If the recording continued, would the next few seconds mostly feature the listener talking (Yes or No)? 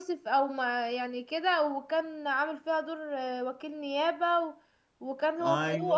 No